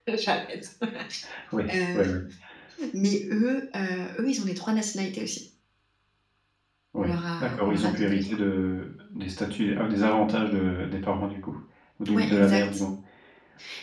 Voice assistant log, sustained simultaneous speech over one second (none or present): present